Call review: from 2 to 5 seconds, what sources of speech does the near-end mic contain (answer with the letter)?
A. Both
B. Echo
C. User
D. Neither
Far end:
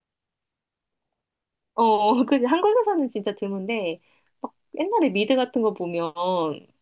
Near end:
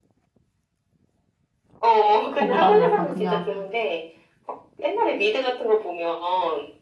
A